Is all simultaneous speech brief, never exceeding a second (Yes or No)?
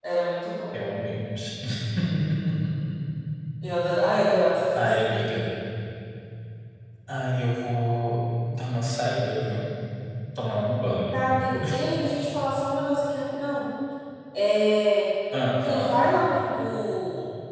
Yes